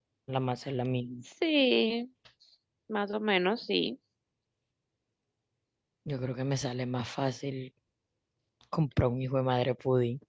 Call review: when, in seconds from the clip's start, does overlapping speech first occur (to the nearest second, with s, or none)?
none